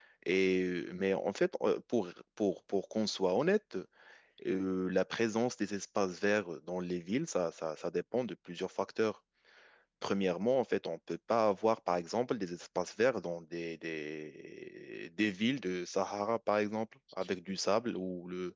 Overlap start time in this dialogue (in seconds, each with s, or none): none